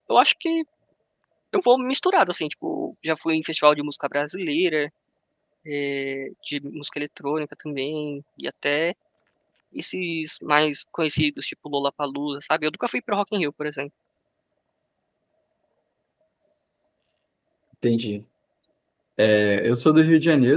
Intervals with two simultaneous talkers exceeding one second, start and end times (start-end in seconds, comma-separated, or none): none